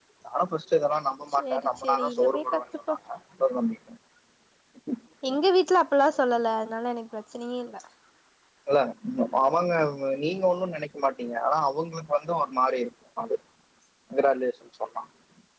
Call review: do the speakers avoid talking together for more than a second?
No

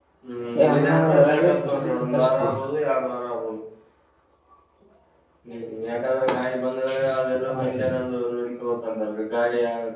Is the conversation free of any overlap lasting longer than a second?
No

